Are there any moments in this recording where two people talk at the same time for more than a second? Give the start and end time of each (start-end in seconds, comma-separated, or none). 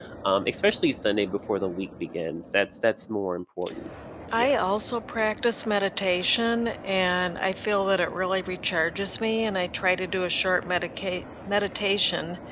none